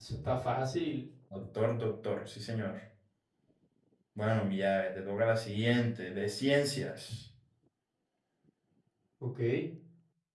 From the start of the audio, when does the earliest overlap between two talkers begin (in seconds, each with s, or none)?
none